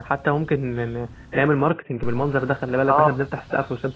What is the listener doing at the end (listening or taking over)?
taking over